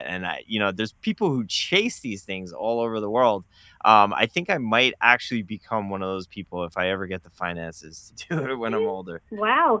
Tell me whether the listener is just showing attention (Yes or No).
No